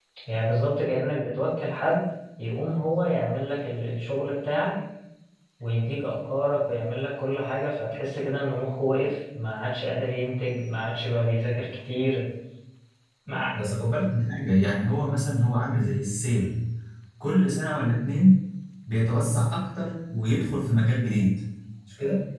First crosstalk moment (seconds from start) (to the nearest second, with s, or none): none